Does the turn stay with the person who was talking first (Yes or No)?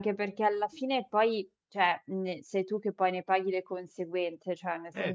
Yes